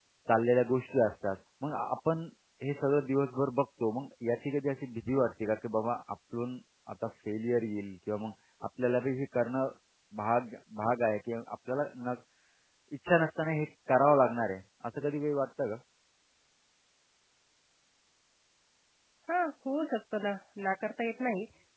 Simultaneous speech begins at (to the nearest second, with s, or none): none